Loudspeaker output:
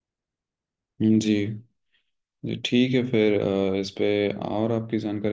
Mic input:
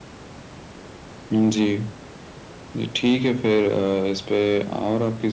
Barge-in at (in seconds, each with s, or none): none